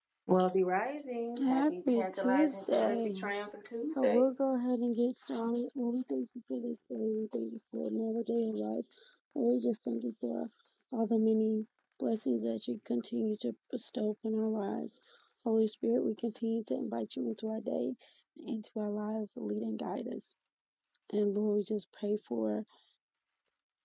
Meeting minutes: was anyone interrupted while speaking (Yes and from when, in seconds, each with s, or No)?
Yes, from 1.4 s